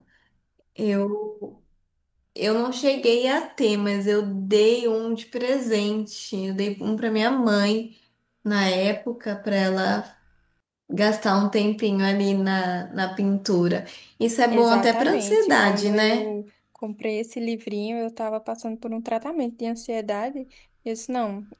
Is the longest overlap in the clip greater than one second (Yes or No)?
Yes